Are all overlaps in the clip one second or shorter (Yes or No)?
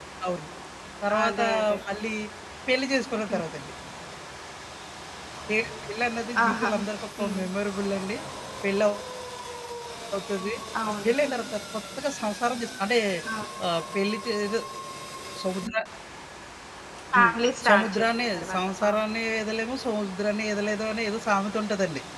No